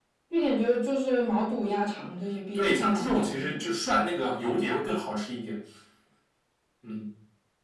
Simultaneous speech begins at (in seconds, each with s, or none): 2.5 s